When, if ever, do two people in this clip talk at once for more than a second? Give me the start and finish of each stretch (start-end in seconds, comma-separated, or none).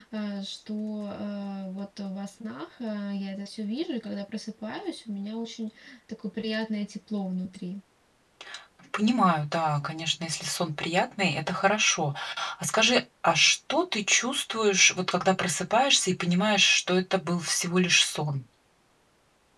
none